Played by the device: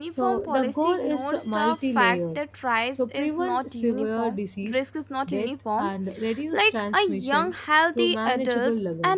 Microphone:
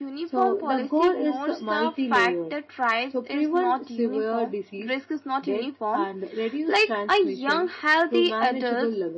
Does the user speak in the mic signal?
No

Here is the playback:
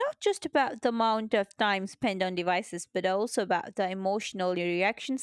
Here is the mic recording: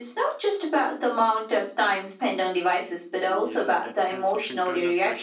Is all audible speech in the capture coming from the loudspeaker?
No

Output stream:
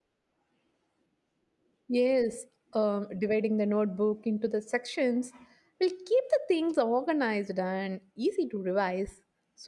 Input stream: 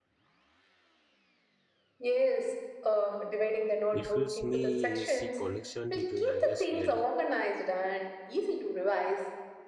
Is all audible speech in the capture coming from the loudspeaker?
No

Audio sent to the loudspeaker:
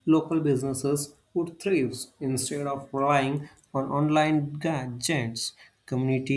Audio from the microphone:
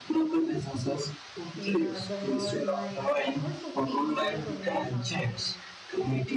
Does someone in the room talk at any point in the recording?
Yes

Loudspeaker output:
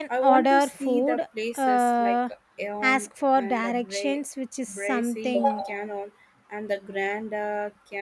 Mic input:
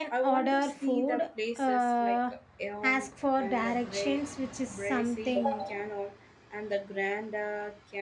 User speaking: No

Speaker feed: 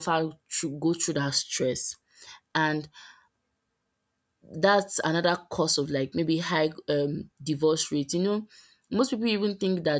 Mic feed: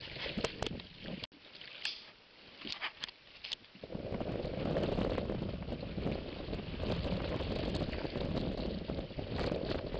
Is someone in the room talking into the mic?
No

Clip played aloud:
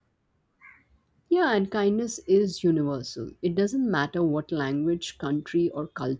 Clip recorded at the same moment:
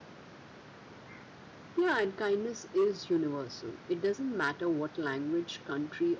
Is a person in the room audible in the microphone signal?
No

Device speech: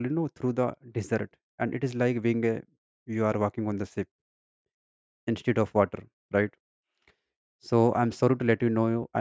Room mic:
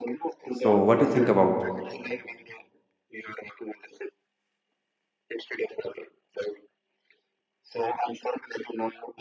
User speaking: Yes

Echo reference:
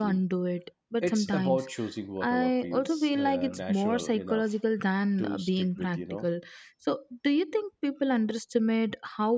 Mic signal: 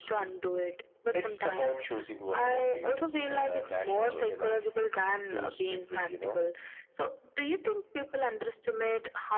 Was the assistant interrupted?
No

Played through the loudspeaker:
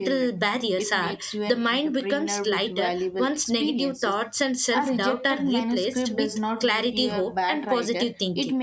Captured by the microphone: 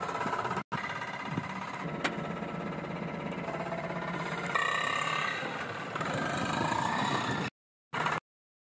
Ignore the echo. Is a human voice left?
No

